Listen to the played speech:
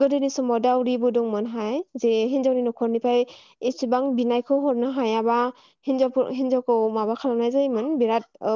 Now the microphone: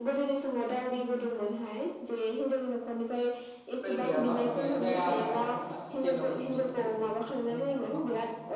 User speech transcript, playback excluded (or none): मबाइल गैयाबा बियो जाया आरो ना गासैनावबो नुजोबखायो गंफा